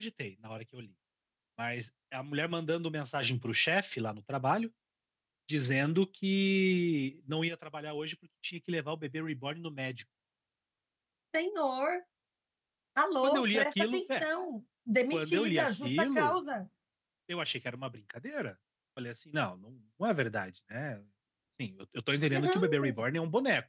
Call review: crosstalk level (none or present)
present